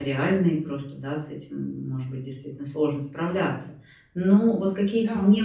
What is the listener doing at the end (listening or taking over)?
listening